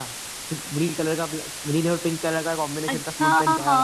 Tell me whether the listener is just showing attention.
No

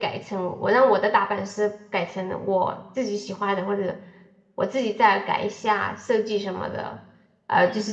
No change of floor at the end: Yes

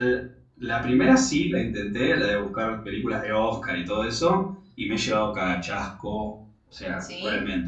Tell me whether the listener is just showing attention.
Yes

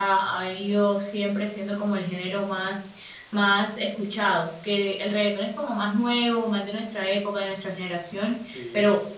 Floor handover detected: No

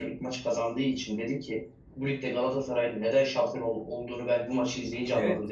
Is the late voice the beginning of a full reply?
Yes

